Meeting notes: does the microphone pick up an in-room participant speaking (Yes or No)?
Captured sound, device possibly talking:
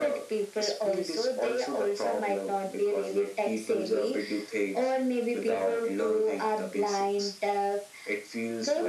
No